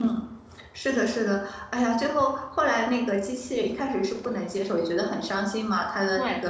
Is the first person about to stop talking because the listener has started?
No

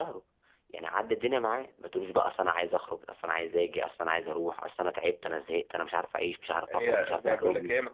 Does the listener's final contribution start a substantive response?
Yes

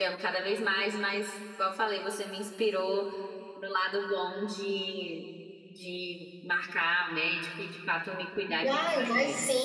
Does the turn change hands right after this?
Yes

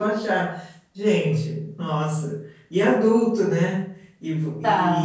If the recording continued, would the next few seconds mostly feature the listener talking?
No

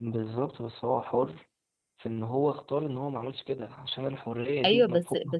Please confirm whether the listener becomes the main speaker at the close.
Yes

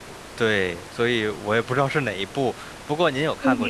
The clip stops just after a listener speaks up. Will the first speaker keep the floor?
No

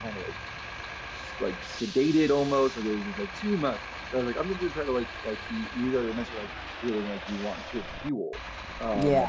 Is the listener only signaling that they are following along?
Yes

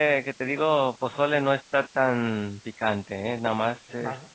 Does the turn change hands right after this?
Yes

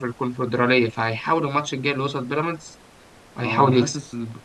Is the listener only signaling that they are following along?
No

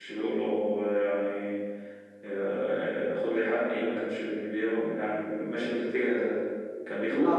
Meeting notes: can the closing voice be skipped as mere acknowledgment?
No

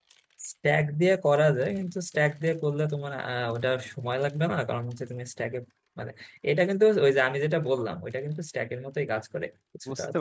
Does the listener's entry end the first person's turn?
Yes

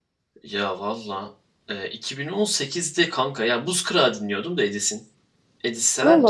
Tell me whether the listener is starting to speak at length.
Yes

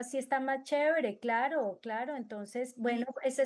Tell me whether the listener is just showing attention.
No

